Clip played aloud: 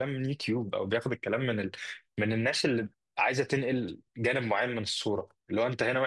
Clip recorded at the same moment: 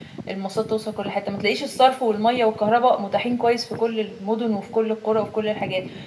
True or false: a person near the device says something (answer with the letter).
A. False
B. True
B